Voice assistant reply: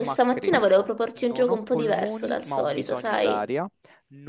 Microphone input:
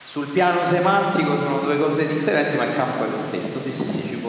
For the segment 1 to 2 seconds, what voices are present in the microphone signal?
user only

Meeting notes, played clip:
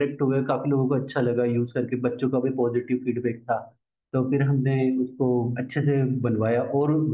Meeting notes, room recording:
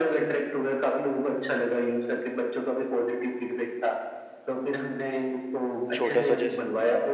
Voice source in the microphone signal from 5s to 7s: both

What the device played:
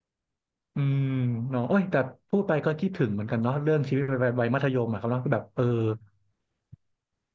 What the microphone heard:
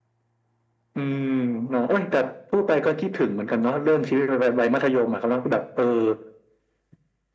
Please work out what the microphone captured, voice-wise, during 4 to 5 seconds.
echo only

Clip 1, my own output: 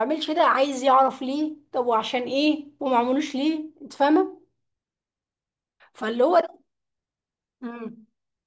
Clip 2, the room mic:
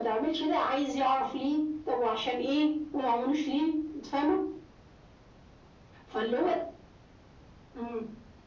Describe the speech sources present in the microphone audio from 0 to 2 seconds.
echo only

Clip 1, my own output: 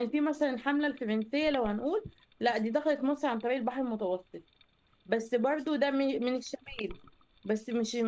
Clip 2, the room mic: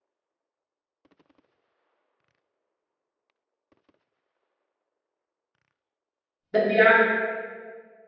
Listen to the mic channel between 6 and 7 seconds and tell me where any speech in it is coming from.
user only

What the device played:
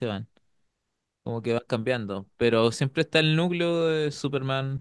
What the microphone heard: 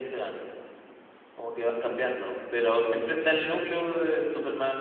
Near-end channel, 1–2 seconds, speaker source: echo only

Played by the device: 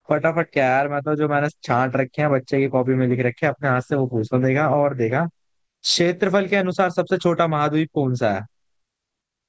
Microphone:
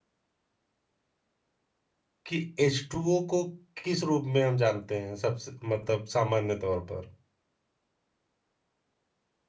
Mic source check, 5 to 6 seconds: user only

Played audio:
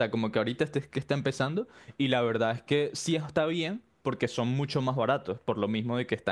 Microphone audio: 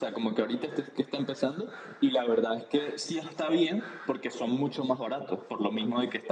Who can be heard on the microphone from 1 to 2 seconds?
echo only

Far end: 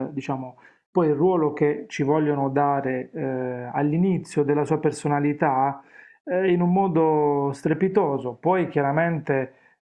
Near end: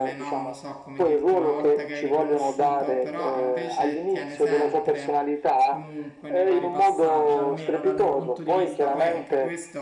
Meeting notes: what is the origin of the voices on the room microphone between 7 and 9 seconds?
both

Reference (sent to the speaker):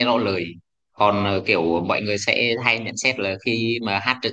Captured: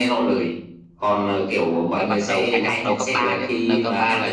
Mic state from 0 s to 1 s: echo only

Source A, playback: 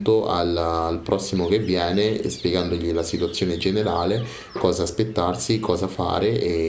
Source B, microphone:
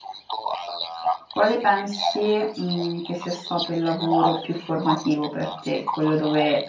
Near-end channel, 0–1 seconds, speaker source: echo only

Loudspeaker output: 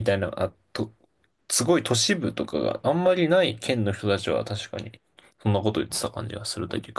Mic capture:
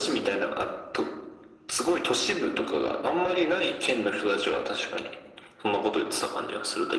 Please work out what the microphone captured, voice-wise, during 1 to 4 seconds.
echo only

